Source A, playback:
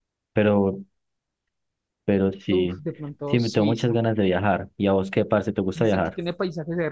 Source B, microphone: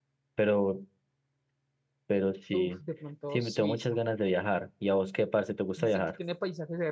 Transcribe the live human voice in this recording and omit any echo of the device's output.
none

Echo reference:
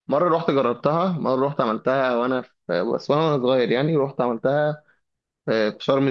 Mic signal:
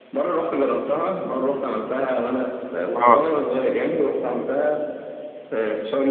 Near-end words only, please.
اه

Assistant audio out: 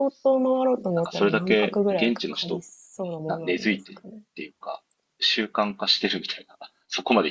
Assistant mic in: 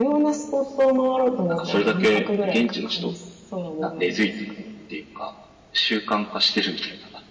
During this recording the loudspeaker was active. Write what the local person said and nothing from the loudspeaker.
none

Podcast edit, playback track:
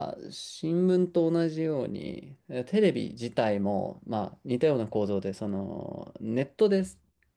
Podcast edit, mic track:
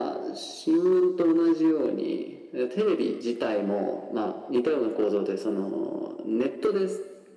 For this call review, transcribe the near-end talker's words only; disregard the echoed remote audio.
none

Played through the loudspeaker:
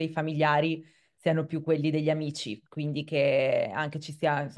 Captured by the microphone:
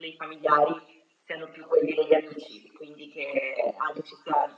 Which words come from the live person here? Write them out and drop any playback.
none

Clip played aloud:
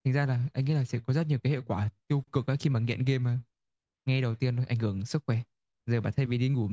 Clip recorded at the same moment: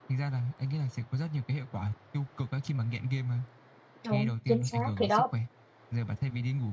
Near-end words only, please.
đúng chính xác thì đó

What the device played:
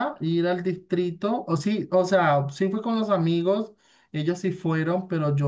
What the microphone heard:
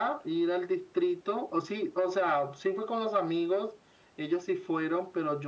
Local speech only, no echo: none

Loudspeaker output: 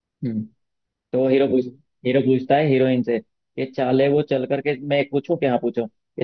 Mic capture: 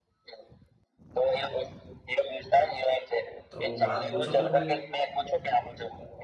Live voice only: तो आप पूछो फिर कोई

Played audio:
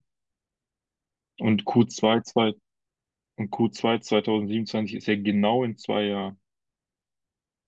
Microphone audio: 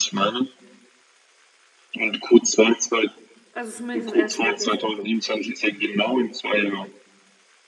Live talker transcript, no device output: Also zumindest das erste Bild jetzt.

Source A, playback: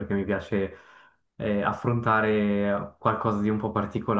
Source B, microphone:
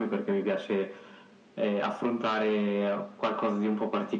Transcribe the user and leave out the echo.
none

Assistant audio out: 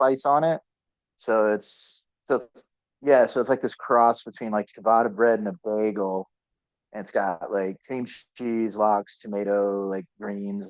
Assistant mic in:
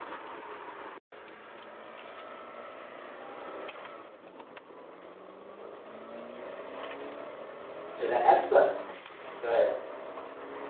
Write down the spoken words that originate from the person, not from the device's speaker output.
So that stuff, go ahead.

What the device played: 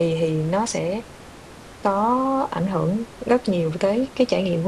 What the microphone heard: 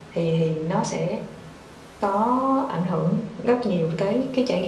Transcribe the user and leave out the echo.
none

